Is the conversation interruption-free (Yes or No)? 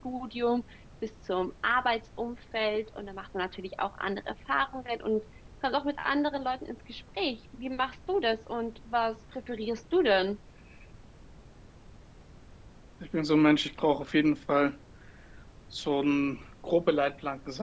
Yes